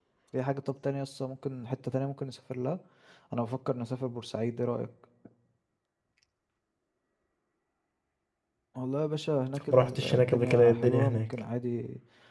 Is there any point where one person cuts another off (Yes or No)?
Yes